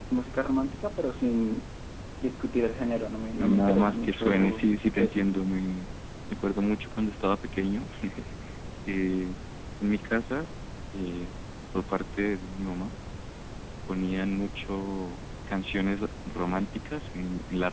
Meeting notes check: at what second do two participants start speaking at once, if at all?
3.4 s

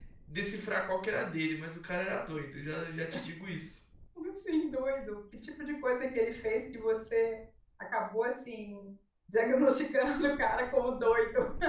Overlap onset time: none

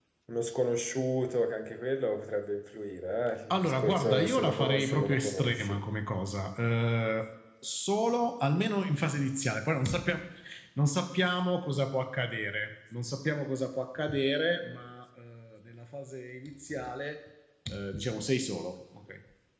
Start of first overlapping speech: 3.5 s

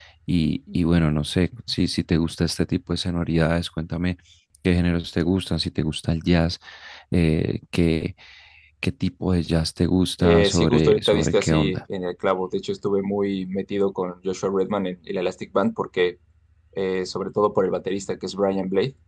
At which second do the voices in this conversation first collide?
10.2 s

